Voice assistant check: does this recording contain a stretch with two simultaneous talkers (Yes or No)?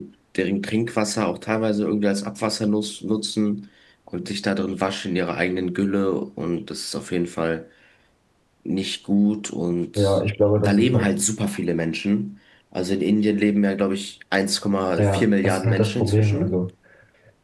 Yes